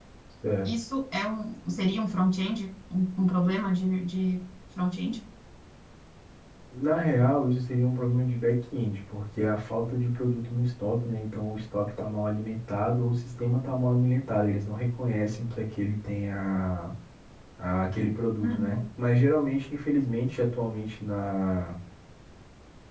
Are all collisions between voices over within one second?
Yes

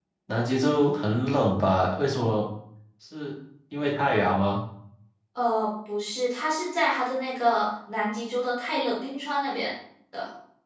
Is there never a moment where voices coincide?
Yes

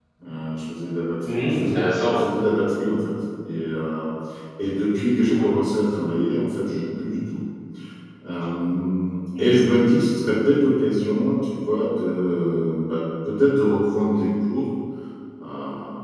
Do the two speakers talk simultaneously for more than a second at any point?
No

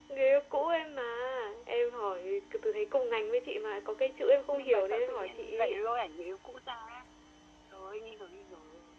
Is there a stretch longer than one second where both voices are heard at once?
Yes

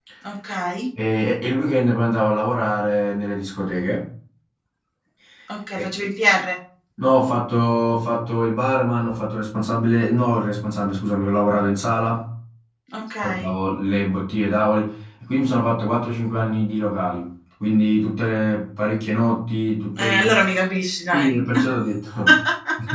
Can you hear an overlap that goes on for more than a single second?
No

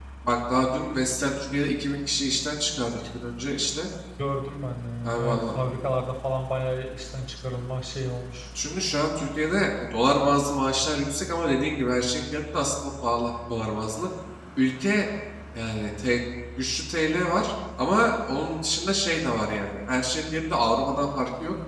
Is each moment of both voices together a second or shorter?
Yes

